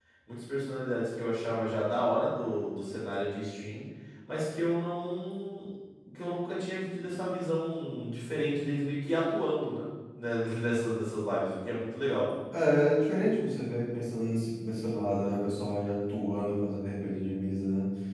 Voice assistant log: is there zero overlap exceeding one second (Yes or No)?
Yes